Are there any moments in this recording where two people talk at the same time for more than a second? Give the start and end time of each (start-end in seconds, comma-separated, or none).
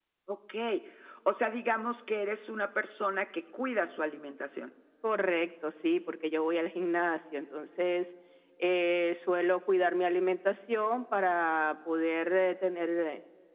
none